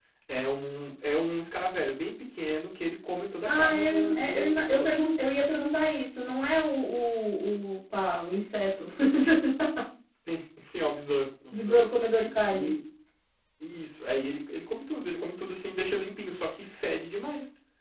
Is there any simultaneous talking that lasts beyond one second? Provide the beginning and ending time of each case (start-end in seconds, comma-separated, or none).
3.4-5.0